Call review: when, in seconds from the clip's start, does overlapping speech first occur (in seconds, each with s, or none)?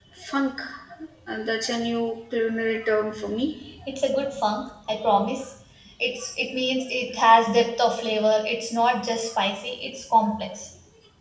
none